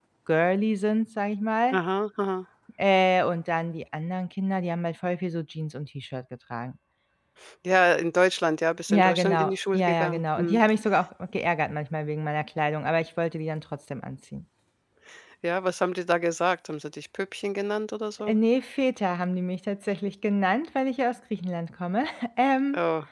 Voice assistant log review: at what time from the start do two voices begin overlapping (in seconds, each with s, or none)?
8.9 s